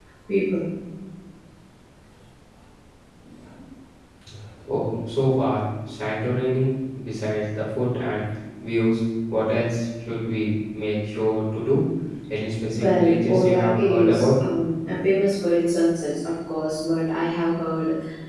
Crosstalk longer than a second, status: present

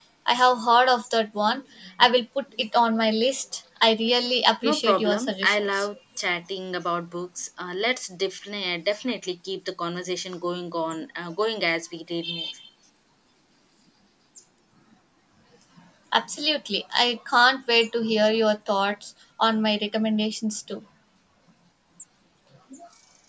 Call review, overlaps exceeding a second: present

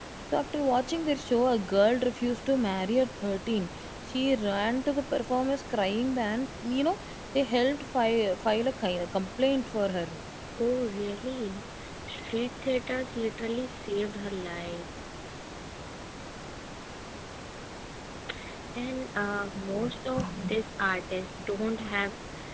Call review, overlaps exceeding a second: none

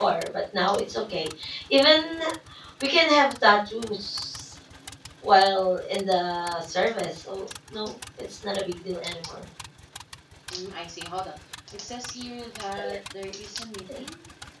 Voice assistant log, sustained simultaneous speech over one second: none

